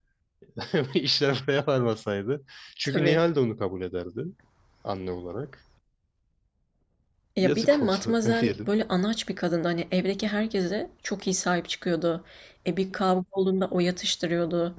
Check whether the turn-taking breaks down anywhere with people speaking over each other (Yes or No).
Yes